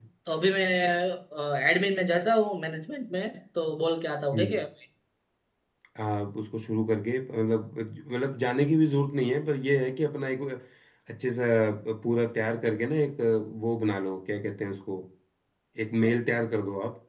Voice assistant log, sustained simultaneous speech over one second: none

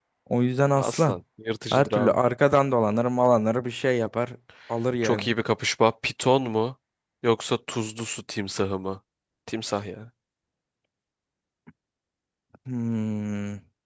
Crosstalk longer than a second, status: none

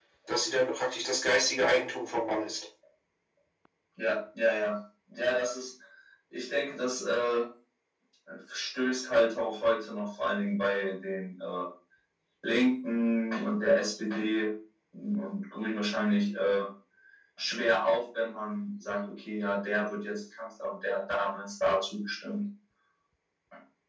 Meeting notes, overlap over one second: none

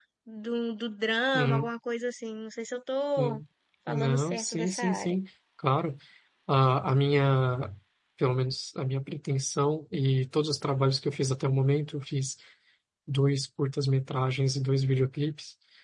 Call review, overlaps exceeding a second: present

